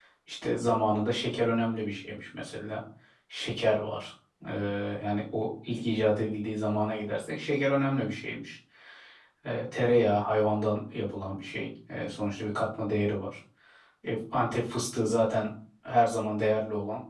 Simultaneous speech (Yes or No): No